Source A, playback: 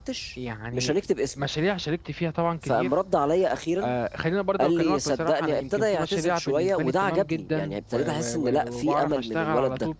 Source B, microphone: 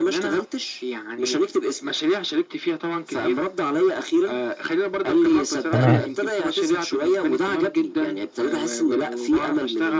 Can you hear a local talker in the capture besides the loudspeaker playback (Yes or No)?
Yes